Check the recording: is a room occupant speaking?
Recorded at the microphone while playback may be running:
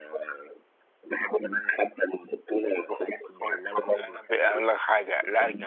Yes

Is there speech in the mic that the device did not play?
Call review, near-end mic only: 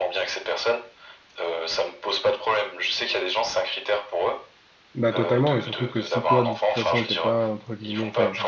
Yes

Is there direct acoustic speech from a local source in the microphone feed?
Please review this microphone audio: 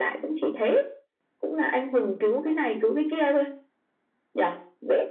No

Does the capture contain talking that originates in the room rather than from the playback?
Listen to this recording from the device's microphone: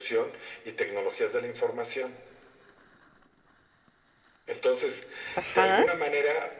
Yes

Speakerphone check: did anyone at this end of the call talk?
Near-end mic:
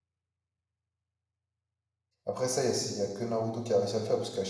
Yes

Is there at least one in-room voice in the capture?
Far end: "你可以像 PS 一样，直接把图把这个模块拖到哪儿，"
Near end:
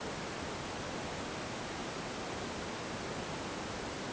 No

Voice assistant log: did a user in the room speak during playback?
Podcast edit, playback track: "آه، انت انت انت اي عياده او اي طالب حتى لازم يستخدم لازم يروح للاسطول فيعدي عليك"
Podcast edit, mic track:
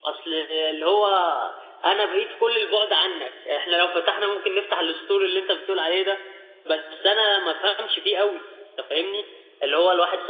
Yes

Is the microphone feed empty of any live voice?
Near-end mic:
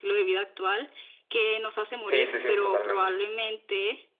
No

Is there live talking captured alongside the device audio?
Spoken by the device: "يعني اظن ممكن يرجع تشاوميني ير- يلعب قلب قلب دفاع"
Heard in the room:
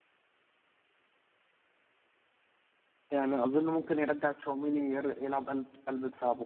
No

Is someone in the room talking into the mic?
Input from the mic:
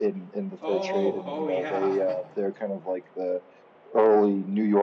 Yes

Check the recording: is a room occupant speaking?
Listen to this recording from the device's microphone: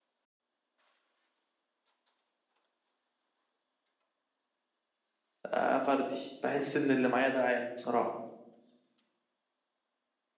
Yes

